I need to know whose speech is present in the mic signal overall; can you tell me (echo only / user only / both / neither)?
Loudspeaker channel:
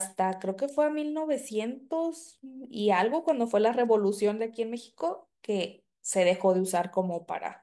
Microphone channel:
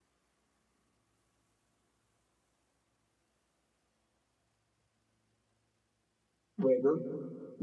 user only